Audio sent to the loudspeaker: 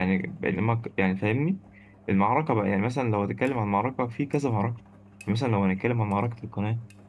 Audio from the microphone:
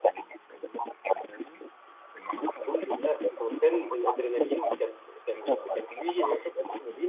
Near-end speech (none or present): present